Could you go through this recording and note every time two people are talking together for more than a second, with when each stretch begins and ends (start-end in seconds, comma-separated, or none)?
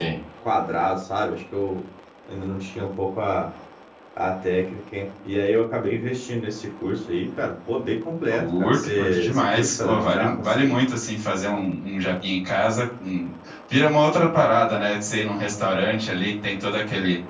8.3-10.8